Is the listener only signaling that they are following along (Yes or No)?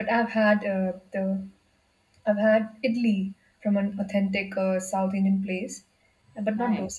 Yes